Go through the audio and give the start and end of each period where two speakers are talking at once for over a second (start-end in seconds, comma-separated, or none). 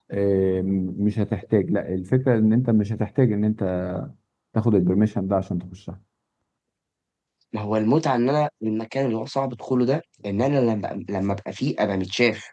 none